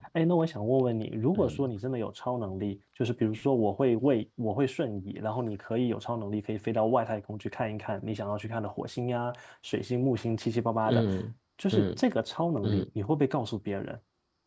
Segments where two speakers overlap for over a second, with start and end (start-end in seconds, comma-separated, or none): none